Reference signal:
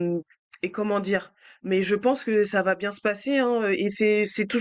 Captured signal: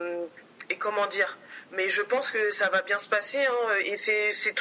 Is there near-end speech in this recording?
No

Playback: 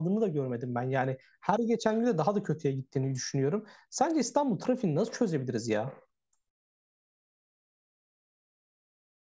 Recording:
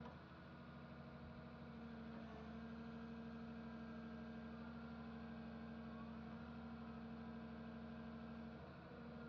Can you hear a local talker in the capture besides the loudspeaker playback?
No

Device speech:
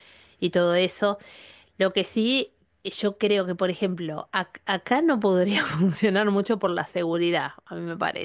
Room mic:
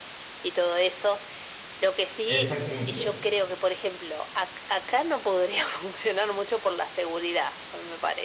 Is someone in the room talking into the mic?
Yes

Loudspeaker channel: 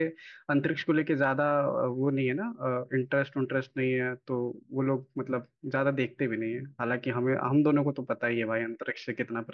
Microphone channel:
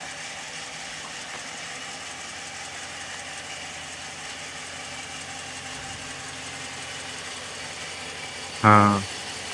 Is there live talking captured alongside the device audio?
Yes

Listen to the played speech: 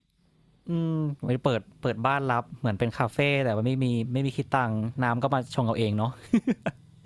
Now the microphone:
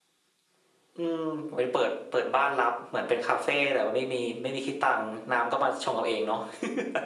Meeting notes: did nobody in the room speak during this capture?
Yes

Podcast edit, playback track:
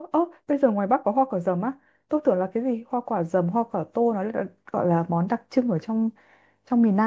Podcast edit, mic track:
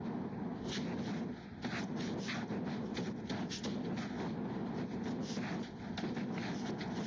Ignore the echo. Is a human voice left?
No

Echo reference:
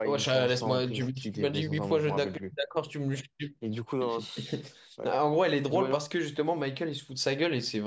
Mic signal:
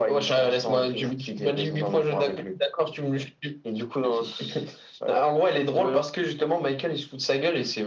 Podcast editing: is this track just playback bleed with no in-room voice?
Yes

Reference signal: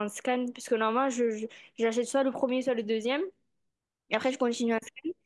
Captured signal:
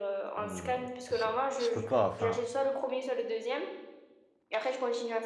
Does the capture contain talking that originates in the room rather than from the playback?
Yes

